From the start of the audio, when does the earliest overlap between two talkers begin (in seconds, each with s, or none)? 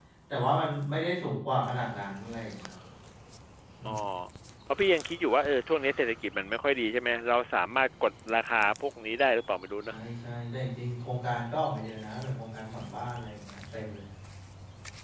none